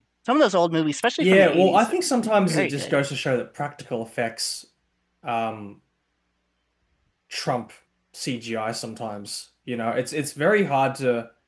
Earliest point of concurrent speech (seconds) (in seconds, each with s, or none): 1.2 s